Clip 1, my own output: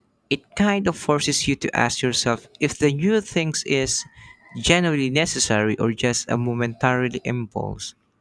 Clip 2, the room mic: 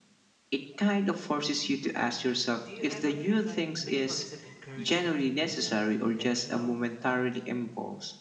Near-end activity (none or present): present